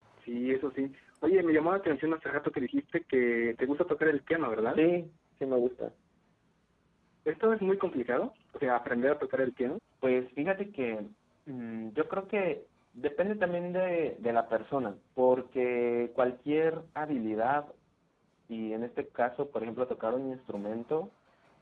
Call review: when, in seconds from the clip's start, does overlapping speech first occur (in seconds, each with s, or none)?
none